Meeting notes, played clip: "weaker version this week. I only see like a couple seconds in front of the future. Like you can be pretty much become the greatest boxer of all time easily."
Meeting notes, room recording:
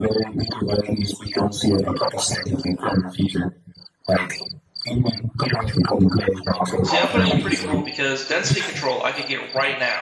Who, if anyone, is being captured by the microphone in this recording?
both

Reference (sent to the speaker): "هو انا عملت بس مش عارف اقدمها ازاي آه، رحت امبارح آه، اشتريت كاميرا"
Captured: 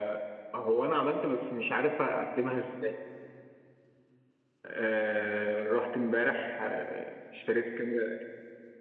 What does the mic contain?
echo only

